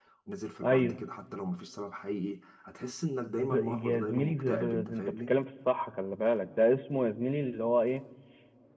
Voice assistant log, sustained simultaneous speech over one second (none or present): present